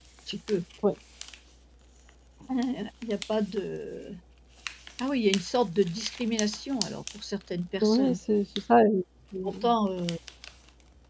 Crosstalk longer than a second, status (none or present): none